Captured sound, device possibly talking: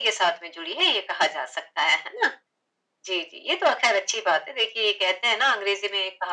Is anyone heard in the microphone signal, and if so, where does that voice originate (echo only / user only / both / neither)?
echo only